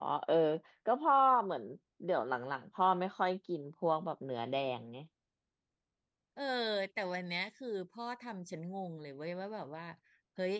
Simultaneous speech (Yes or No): No